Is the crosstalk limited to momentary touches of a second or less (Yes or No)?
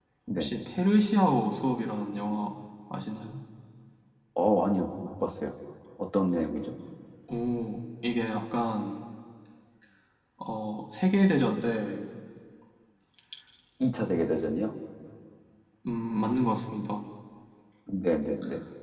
Yes